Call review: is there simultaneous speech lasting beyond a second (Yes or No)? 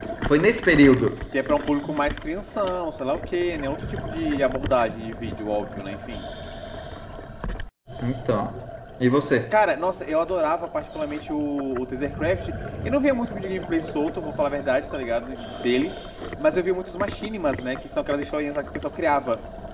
No